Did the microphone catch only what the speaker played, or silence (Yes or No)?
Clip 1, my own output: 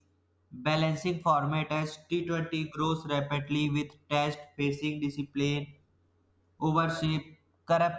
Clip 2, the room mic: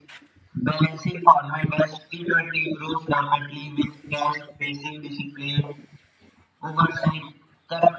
Yes